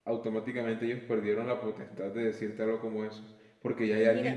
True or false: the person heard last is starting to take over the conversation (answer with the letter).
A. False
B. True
A